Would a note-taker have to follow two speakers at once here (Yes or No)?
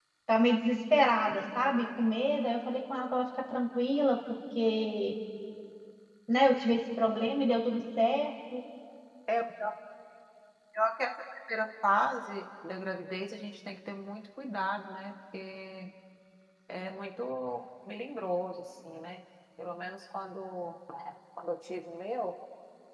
No